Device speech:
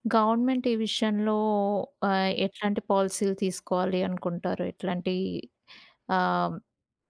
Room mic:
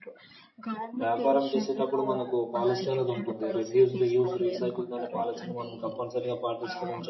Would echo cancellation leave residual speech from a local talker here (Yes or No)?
Yes